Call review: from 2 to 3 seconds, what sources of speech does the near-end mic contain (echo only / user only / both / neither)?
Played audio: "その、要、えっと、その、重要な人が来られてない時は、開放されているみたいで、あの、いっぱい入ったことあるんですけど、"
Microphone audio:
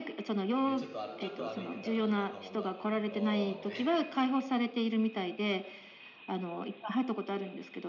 both